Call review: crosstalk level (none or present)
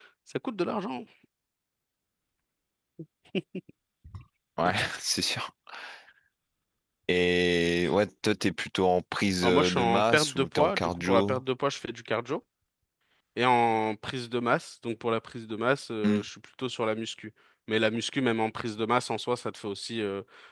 present